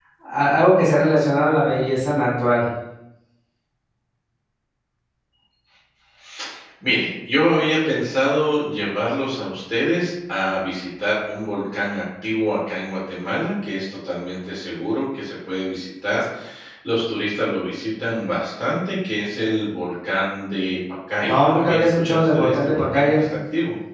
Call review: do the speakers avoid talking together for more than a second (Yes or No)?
No